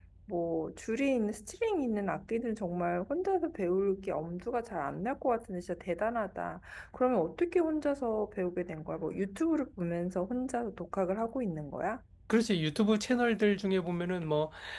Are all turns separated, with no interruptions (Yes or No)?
Yes